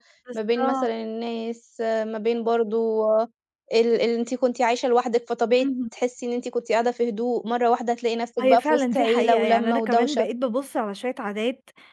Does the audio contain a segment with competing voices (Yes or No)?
Yes